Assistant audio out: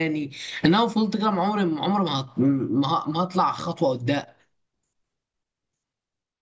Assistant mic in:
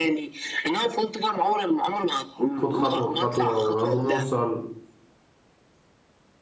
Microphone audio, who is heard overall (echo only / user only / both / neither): both